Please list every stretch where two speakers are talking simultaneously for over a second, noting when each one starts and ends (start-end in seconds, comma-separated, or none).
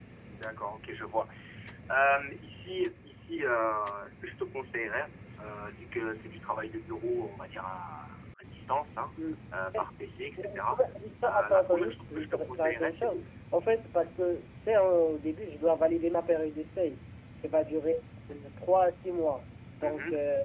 11.2-13.2